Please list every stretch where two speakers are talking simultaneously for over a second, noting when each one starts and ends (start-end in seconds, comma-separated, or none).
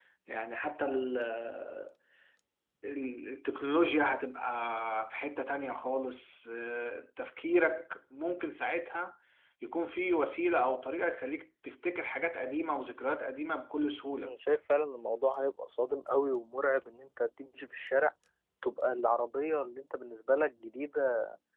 none